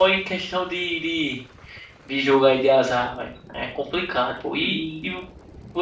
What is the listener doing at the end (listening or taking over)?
listening